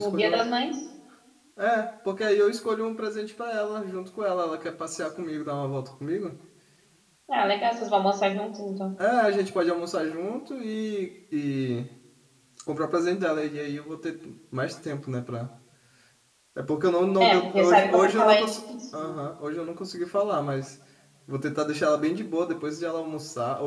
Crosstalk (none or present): present